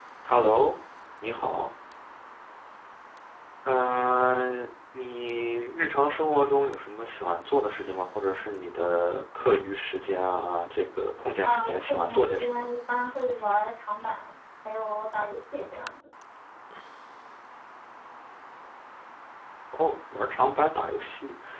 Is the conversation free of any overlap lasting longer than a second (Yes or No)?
No